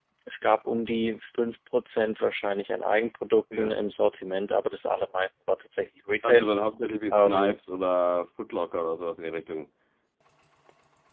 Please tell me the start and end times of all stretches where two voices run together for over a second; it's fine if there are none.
none

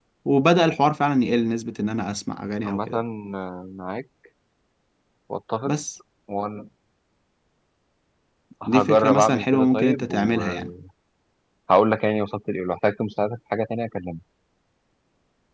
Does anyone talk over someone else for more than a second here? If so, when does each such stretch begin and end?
8.6-10.7

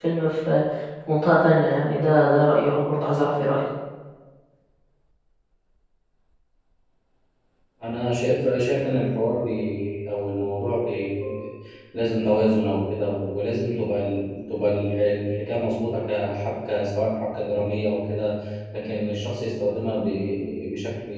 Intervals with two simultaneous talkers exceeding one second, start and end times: none

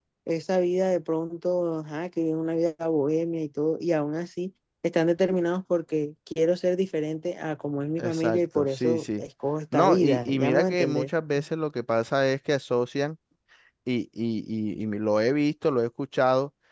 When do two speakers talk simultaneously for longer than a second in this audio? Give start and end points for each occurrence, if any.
8.0-9.2, 9.7-11.1

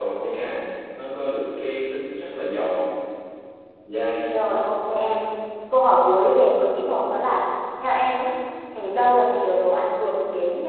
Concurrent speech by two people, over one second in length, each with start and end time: none

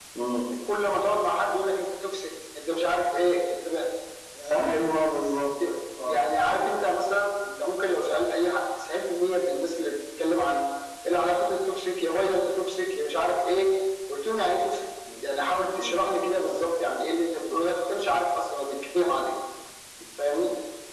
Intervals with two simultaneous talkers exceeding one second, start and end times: none

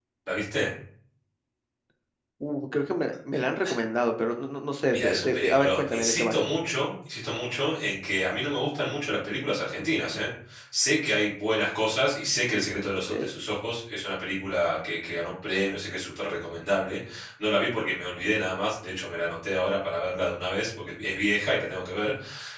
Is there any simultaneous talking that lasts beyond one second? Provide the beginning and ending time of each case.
4.9-6.3

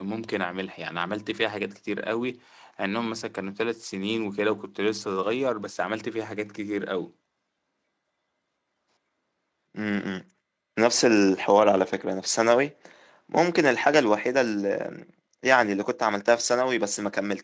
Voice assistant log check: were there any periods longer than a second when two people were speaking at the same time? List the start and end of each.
none

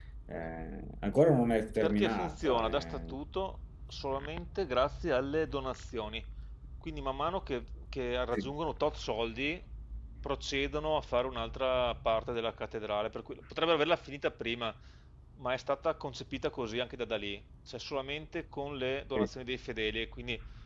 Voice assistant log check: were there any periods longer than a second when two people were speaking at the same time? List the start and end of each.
1.8-3.1

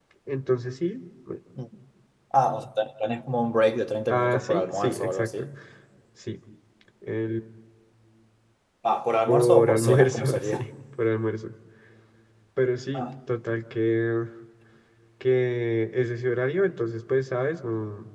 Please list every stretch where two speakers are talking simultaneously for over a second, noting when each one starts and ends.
4.1-5.3, 9.3-10.6

